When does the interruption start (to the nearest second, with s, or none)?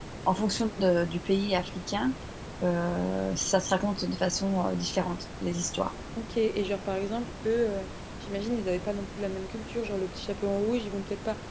none